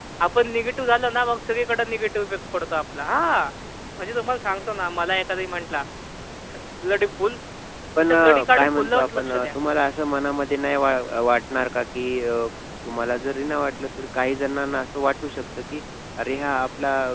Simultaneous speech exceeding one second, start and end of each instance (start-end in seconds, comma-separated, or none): 8.0-9.5